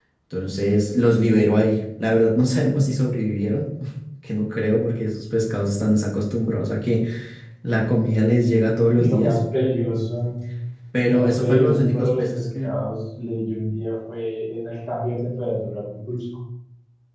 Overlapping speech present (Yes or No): Yes